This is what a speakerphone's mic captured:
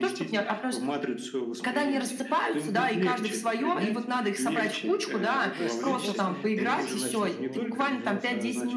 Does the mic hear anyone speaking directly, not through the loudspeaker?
Yes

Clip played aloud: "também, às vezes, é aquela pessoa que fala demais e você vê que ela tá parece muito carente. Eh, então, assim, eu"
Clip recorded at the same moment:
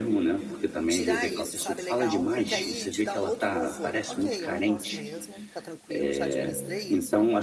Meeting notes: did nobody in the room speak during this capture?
No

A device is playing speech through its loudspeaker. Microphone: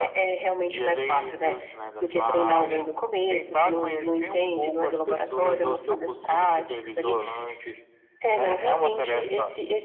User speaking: No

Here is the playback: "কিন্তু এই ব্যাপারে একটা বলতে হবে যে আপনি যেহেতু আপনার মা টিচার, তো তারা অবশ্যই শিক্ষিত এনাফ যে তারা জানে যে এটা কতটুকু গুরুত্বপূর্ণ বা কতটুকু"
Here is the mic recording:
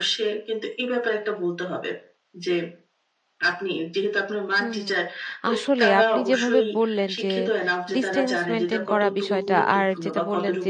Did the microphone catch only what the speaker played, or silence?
No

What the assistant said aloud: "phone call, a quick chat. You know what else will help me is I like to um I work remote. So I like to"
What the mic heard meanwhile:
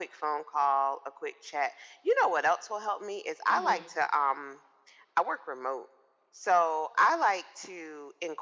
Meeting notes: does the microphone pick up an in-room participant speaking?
Yes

